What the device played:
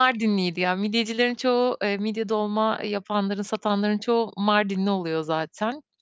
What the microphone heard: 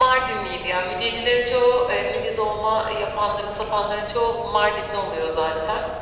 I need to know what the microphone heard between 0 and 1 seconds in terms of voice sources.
echo only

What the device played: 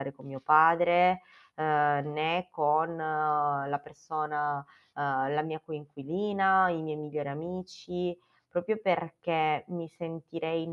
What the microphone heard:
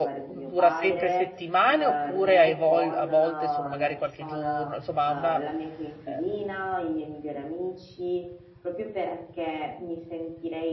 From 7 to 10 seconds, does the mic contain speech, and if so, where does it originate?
echo only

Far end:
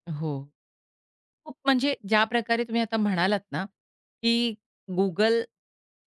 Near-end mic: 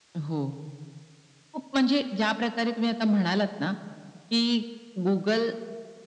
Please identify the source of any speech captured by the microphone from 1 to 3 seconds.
echo only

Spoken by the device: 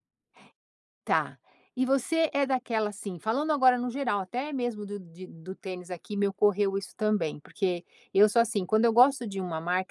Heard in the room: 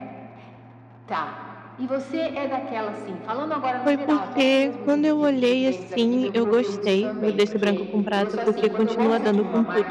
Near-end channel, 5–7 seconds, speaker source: both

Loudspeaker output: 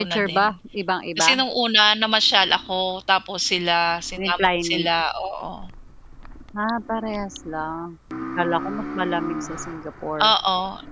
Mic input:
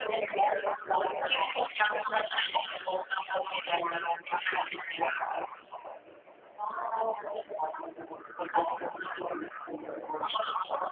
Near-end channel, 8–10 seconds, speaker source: echo only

